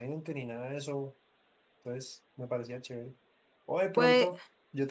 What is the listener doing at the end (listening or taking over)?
listening